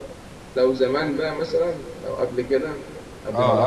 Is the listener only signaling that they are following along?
No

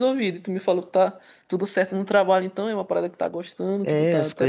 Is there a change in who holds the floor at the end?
Yes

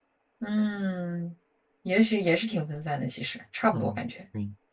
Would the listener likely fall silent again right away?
No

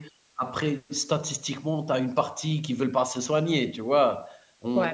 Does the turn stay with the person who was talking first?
Yes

